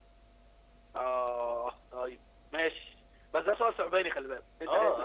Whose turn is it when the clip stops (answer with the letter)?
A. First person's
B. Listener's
B